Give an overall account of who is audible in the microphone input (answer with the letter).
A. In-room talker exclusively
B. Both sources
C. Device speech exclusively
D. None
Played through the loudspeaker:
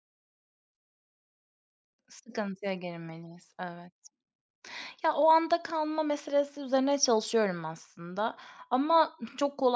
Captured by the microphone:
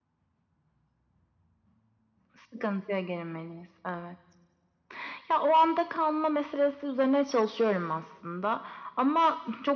C